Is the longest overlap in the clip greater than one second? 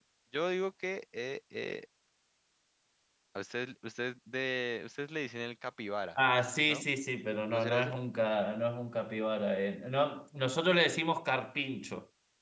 No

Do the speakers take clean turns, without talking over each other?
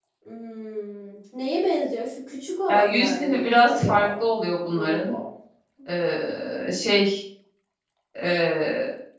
No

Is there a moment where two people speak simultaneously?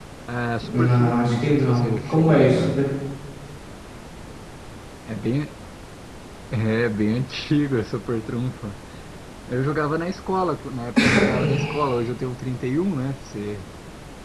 Yes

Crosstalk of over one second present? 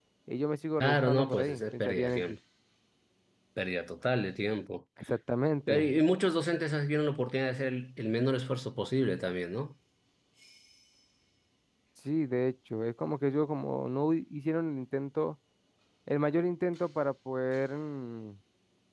Yes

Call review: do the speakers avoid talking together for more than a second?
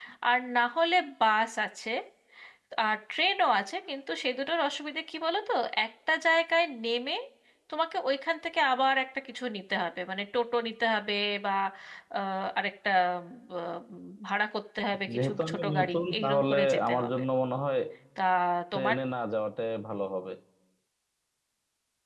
No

